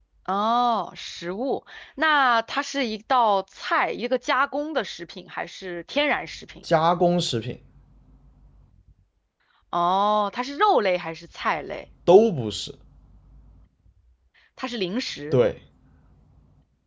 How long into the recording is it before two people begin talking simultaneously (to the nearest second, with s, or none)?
none